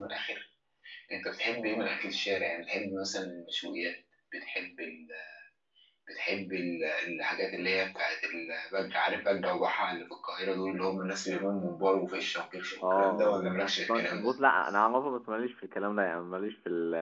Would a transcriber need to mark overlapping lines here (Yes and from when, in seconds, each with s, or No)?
Yes, from 12.8 s